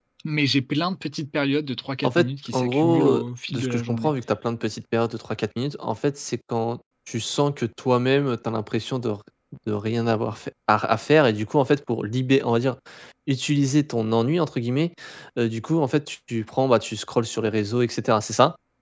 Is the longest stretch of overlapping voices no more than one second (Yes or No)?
No